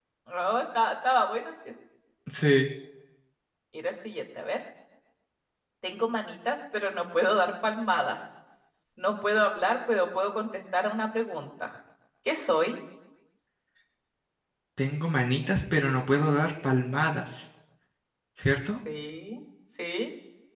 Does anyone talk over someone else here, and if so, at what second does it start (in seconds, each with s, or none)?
none